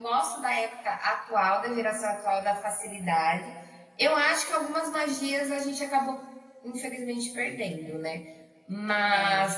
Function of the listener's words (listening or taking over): listening